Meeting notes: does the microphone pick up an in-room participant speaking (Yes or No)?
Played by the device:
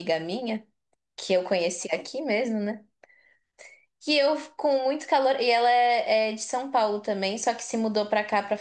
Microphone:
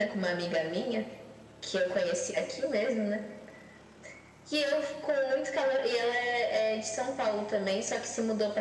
No